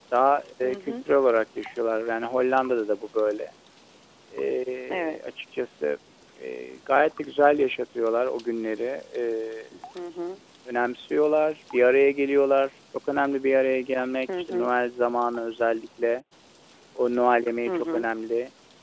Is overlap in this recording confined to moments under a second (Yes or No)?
Yes